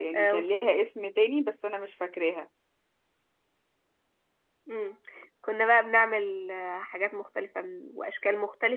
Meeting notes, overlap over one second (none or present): none